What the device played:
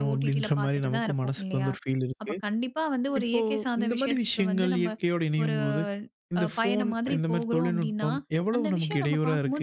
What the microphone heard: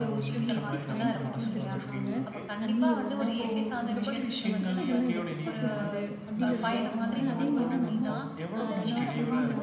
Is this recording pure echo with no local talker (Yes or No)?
No